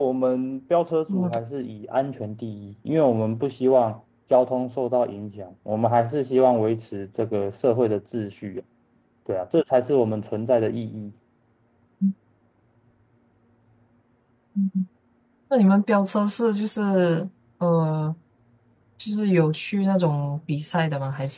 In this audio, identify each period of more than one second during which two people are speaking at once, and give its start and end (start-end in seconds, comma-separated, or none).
none